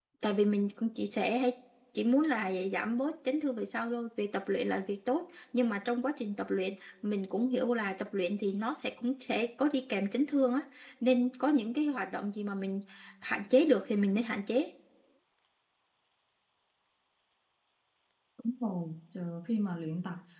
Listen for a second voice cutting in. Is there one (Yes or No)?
No